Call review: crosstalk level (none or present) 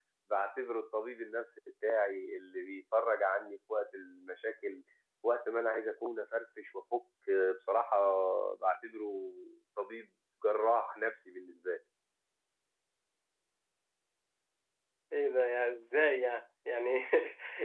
none